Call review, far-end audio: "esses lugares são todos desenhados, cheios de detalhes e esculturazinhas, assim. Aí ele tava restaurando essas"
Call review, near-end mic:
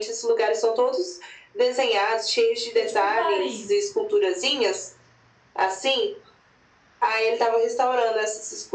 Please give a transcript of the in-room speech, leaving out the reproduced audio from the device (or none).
Porque, tipo, Paris